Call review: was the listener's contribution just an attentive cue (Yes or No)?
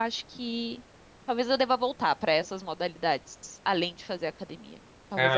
No